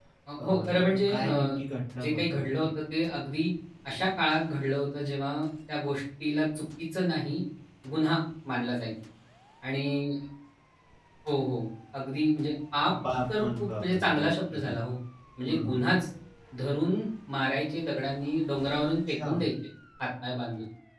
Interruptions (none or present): present